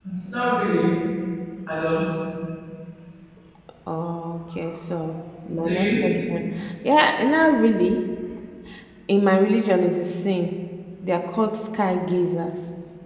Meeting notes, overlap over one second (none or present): none